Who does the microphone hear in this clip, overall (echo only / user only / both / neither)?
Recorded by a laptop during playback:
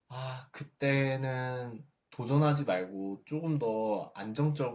user only